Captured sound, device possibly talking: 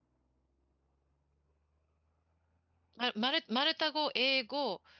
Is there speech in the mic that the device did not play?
Yes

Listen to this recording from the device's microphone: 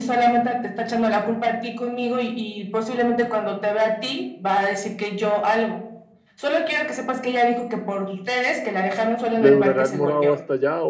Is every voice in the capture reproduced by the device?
No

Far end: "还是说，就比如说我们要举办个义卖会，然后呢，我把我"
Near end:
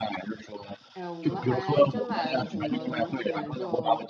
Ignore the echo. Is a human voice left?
Yes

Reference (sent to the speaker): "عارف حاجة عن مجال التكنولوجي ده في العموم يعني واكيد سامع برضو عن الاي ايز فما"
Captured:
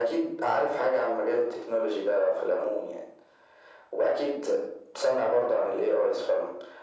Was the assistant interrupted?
No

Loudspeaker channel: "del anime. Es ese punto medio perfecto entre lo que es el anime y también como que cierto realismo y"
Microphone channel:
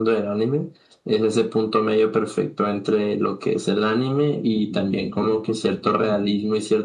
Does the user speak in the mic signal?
No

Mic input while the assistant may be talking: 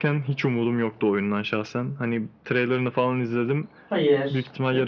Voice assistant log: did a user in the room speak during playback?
Yes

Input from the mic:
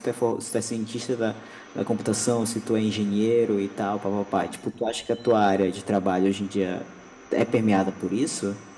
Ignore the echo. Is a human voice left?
No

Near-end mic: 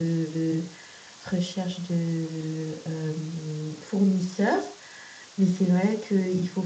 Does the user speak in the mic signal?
Yes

